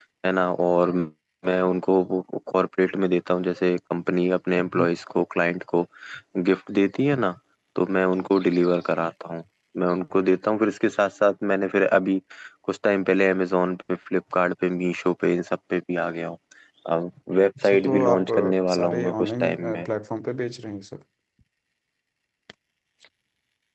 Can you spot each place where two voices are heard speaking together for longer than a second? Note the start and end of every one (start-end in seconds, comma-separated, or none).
17.6-19.9